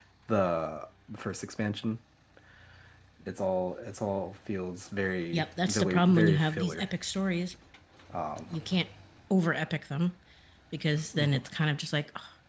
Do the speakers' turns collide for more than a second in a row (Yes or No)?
Yes